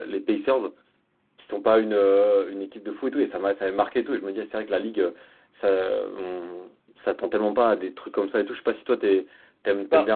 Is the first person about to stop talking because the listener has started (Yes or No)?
No